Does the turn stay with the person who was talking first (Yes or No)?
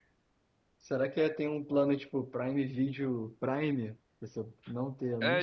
No